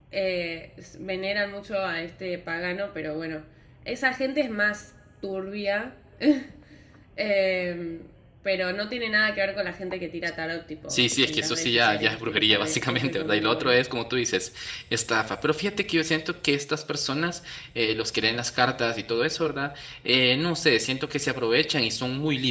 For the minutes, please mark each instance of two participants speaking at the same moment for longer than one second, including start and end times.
10.9-13.8

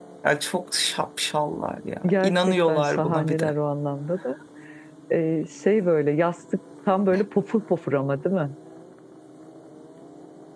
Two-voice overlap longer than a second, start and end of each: 2.1-3.5

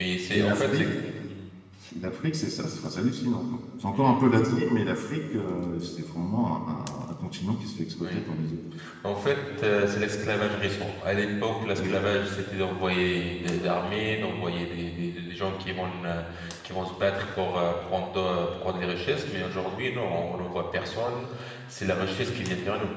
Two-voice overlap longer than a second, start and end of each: none

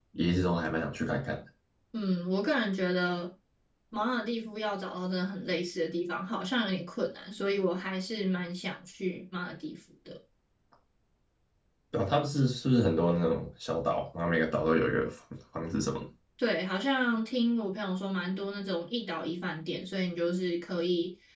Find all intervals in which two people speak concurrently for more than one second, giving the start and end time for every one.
none

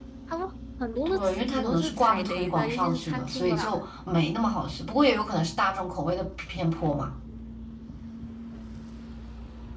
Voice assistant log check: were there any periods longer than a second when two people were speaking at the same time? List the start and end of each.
1.1-3.8

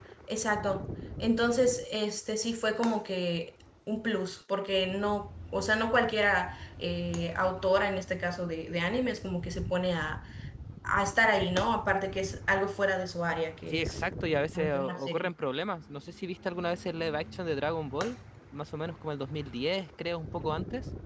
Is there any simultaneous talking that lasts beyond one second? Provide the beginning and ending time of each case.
13.7-15.3

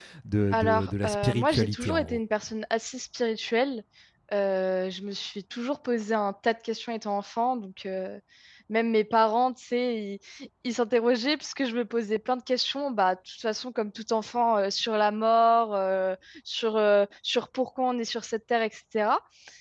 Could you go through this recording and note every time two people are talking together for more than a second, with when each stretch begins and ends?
0.5-2.2

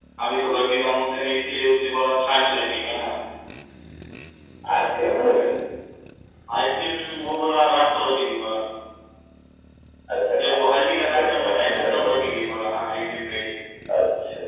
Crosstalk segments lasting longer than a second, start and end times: 10.4-12.1

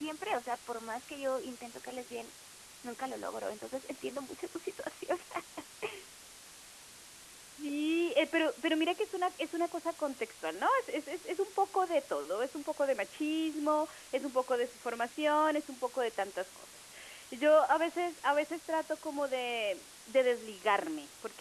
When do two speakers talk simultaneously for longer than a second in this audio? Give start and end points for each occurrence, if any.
none

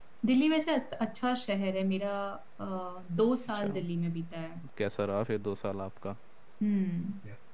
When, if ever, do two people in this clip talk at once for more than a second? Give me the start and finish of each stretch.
none

